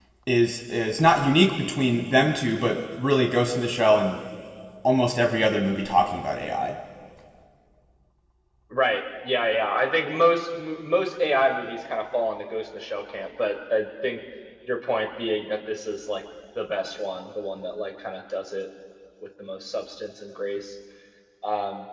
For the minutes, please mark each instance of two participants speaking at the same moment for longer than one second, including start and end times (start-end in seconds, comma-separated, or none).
none